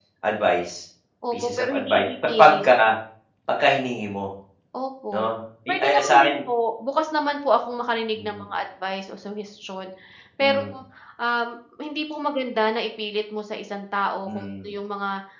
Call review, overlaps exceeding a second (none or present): present